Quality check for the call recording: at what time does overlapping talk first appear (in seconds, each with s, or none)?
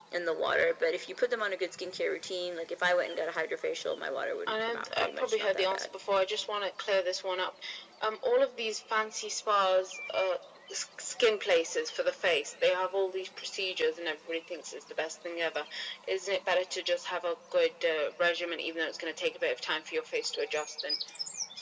4.5 s